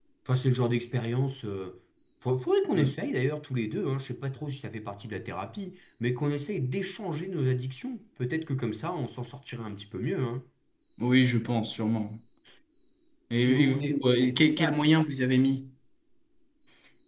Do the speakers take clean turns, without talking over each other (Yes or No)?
No